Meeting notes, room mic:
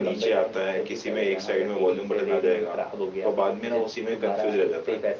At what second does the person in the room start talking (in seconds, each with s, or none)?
none